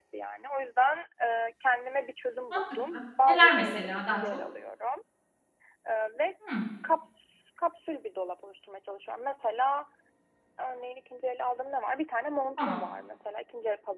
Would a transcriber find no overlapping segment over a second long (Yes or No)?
No